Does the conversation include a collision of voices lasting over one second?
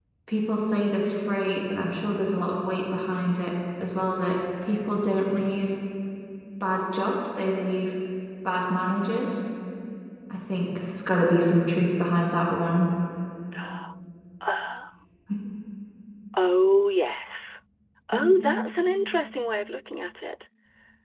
No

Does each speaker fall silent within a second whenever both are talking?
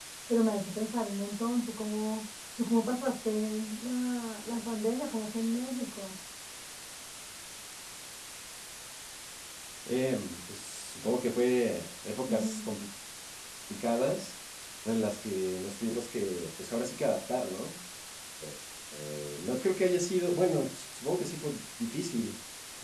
Yes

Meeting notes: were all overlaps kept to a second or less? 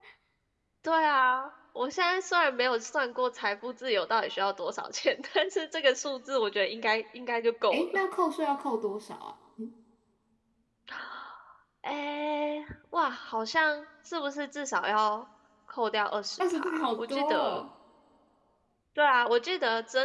No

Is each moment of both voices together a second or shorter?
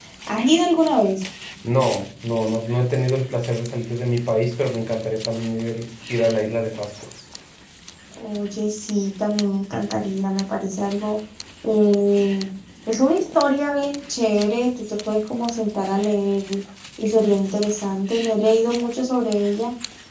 Yes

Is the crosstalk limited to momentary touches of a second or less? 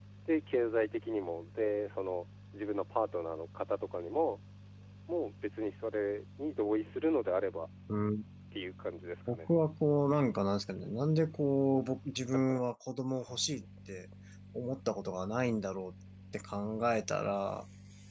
Yes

